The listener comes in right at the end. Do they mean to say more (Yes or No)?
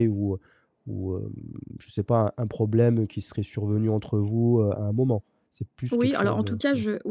Yes